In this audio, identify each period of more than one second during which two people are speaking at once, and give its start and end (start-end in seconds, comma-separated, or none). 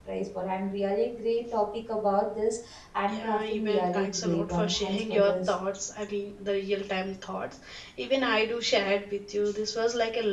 3.1-5.5